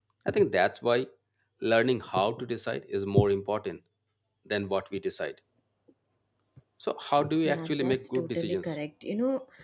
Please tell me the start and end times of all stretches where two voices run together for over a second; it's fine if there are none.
7.4-8.7

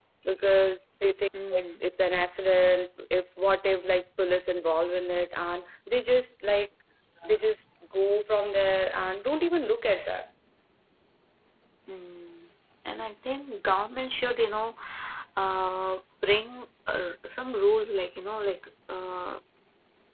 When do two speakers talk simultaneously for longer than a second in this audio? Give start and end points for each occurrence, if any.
none

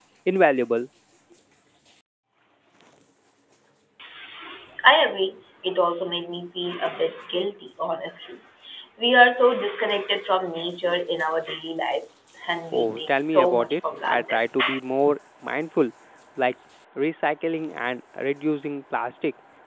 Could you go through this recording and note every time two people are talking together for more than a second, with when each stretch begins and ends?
12.7-14.4

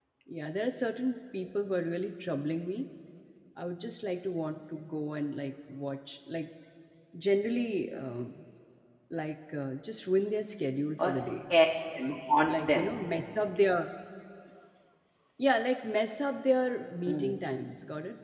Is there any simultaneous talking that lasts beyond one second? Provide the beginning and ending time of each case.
none

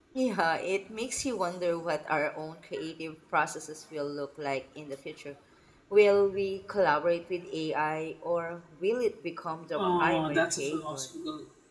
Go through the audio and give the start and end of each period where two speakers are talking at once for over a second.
9.7-11.1

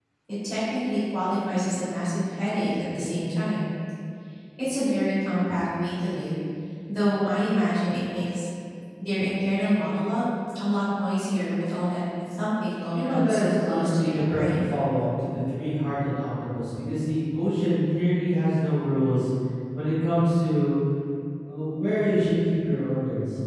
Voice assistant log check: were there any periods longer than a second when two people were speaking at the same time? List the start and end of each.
12.9-14.7

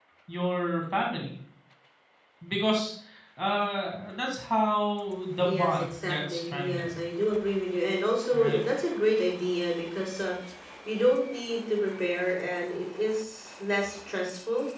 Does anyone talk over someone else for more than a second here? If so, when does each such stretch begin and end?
5.4-7.0

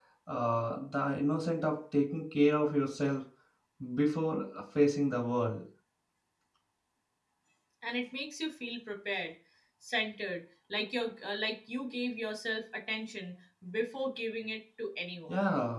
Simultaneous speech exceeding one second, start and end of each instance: none

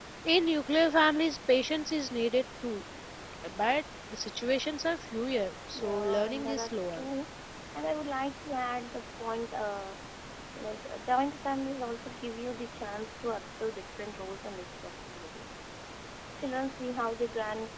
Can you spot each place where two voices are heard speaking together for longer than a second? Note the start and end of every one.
5.8-7.1

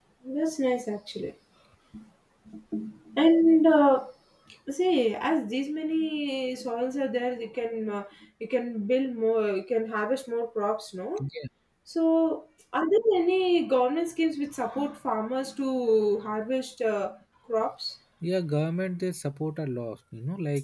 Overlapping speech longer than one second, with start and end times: none

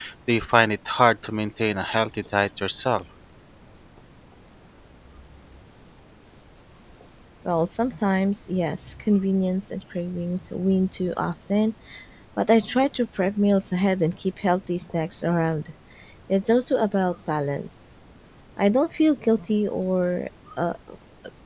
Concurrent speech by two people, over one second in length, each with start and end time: none

